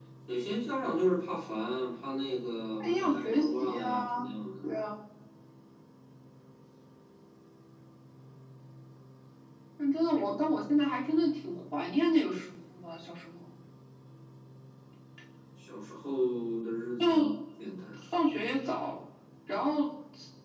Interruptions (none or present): present